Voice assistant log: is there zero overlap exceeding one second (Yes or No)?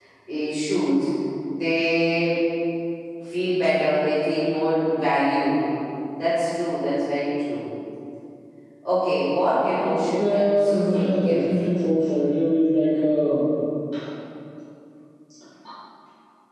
No